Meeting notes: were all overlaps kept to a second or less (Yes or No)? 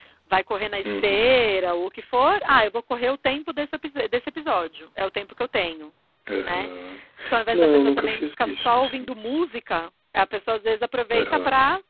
No